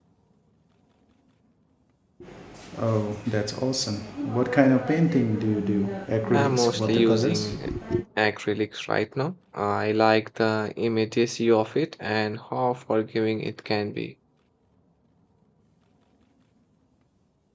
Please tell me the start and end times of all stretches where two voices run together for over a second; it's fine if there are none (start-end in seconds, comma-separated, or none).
6.3-7.6